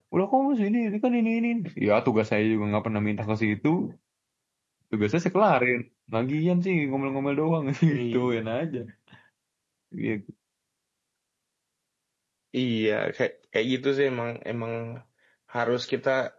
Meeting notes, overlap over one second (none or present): none